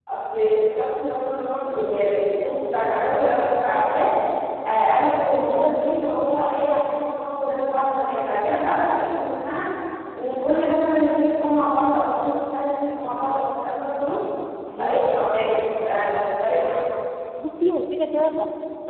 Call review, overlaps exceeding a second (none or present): none